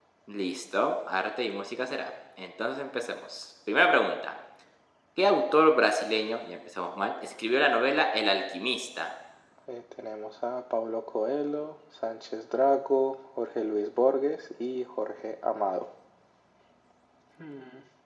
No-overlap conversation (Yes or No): Yes